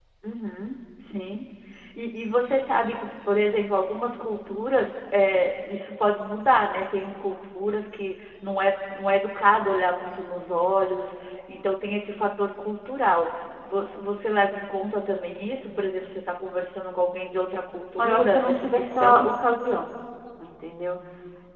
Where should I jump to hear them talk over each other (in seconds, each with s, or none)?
18.0 s